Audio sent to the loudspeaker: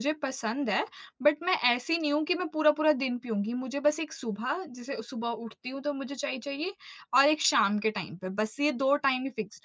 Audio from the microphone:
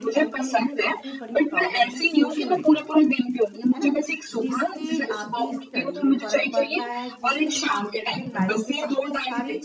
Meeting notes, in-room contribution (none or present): present